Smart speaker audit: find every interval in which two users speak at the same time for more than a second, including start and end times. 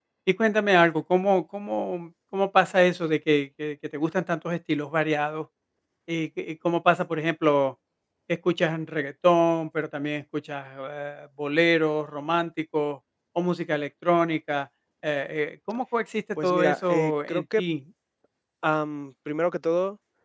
16.4-17.6

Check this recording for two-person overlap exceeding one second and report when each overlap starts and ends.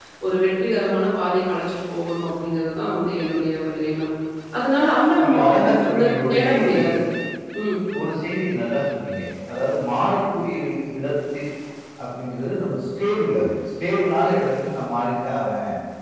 5.2-6.8

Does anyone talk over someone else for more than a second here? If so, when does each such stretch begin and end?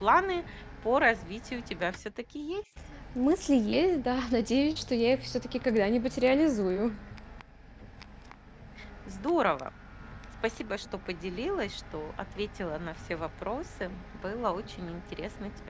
none

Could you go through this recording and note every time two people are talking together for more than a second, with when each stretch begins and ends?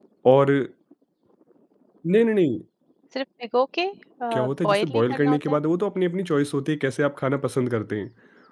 4.3-5.6

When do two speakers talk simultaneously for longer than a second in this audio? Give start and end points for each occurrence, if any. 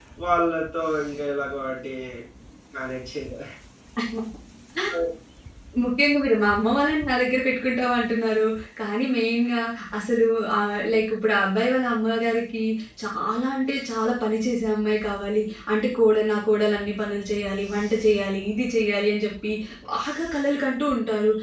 none

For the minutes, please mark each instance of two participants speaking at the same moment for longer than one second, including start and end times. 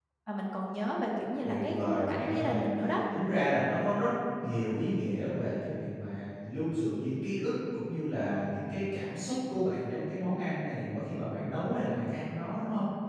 1.4-2.6

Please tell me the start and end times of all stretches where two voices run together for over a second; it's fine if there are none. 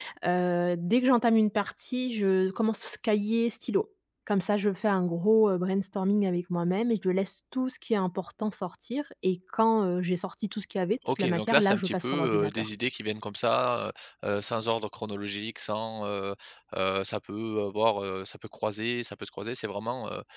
11.1-12.7

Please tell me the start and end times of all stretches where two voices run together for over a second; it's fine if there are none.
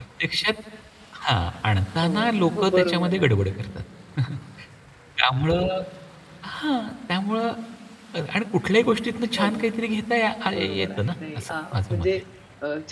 2.0-3.3, 10.5-12.1

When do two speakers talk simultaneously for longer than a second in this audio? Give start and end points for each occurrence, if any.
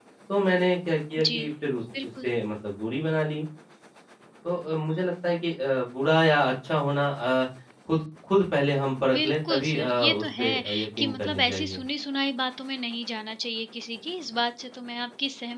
9.1-11.8

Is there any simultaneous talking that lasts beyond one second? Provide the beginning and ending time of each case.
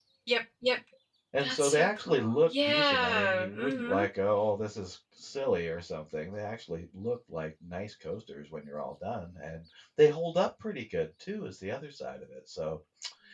1.4-4.0

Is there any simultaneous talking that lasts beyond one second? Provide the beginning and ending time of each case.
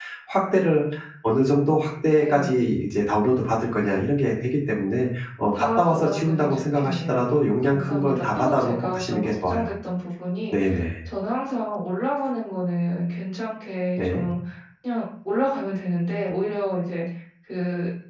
5.5-7.2, 7.6-9.7

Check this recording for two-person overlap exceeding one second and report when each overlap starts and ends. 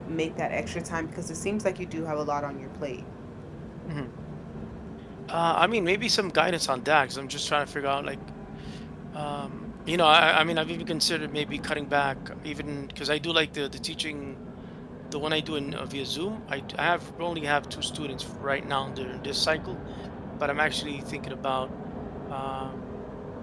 none

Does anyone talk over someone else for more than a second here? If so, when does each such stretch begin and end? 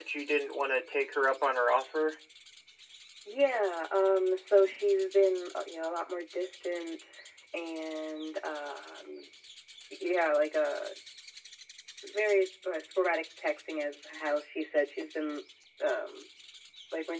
none

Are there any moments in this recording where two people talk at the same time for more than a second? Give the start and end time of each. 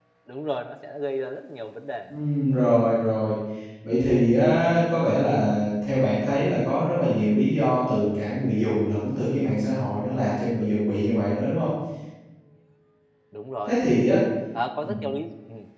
none

